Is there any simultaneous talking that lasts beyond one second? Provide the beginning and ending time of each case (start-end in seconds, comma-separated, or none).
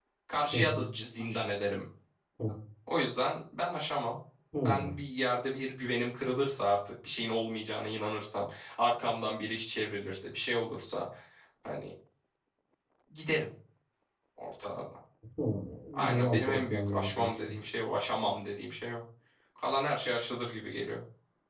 15.9-17.6